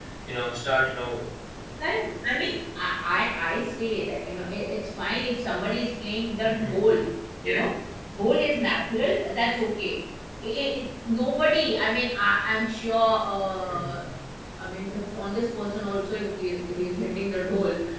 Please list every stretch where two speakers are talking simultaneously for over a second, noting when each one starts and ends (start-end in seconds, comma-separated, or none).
none